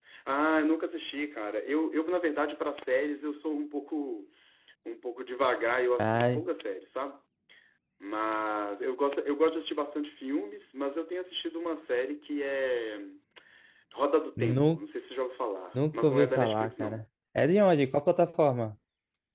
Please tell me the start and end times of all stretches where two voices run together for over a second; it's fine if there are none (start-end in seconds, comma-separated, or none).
15.7-17.0